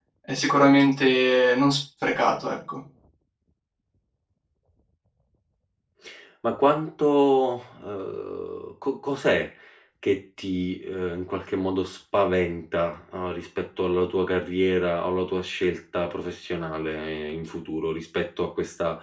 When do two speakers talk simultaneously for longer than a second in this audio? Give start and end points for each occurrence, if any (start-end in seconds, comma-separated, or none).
none